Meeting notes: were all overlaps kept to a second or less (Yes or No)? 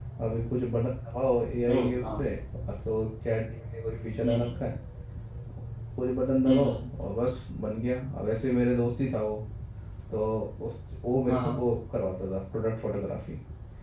Yes